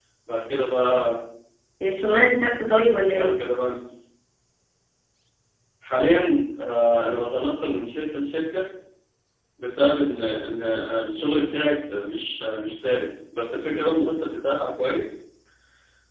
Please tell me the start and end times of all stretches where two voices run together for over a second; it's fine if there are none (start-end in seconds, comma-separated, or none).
none